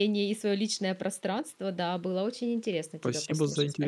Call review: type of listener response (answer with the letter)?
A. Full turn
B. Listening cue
A